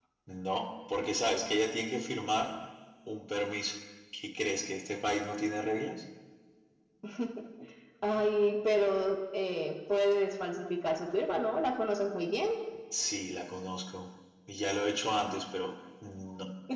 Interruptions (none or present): none